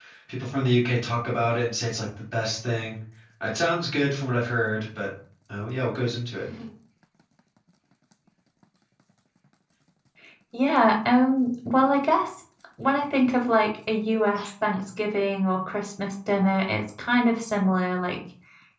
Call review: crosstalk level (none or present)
none